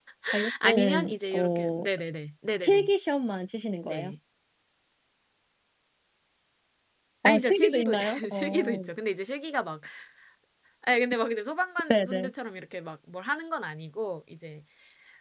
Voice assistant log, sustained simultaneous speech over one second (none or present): present